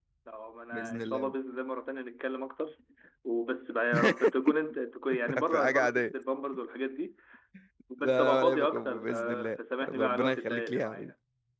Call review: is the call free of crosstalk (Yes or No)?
No